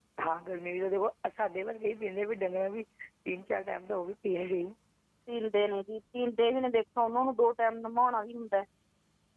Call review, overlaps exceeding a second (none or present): none